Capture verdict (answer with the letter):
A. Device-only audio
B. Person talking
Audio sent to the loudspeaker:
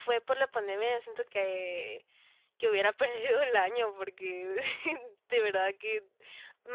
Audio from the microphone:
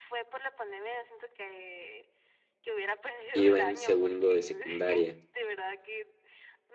B